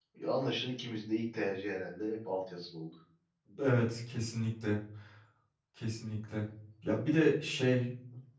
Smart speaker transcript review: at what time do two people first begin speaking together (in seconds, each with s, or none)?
none